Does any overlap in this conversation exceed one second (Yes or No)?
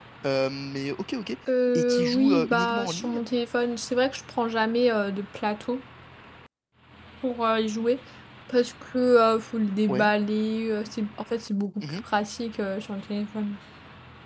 Yes